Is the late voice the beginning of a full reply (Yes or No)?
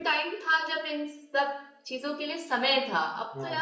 No